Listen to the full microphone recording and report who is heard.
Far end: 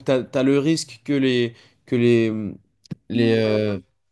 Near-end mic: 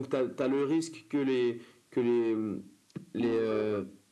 echo only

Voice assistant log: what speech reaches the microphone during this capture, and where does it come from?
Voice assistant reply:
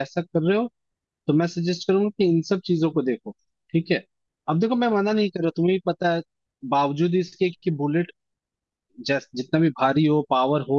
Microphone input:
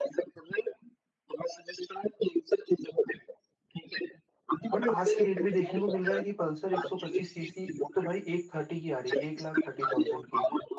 both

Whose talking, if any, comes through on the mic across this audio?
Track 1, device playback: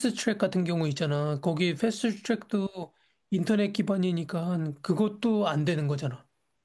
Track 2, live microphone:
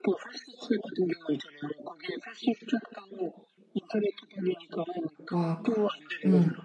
both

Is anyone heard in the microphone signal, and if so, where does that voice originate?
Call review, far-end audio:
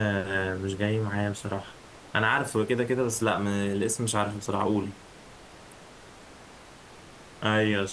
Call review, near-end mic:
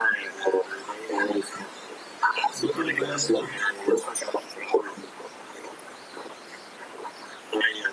both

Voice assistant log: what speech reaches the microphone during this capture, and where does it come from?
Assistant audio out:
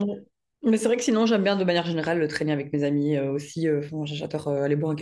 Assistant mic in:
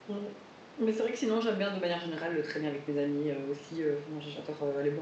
echo only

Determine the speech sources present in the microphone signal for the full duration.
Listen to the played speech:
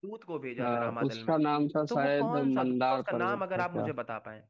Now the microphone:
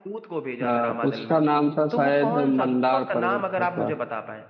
echo only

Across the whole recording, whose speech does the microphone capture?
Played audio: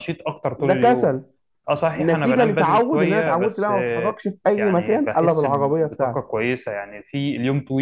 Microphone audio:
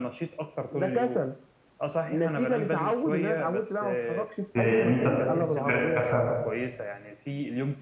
both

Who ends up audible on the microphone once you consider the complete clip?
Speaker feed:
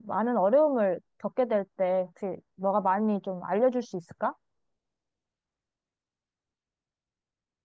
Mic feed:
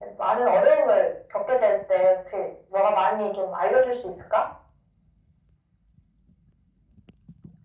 echo only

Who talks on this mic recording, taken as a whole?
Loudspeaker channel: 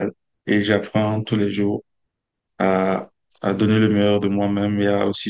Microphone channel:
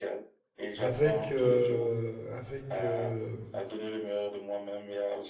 both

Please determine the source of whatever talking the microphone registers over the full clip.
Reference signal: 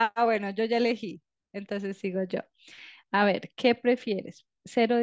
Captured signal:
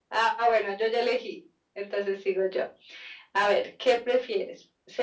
echo only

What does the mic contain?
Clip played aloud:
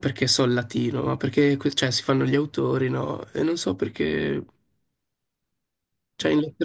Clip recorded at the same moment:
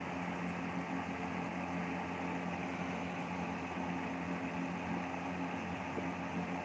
neither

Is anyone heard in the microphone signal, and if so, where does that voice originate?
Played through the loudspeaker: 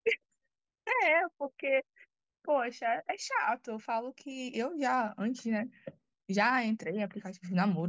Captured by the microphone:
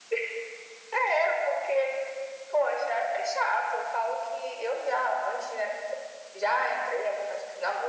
echo only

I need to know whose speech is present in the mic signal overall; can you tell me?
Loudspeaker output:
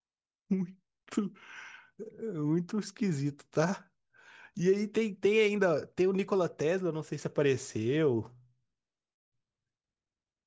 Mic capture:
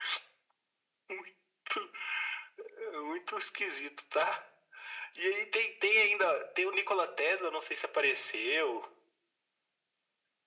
echo only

